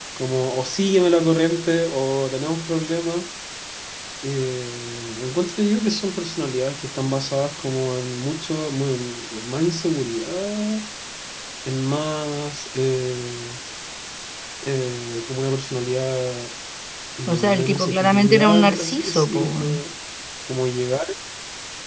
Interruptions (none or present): present